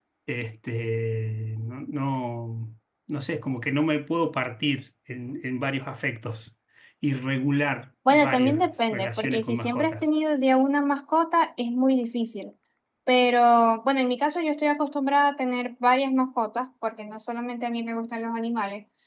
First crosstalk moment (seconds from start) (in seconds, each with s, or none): 8.0 s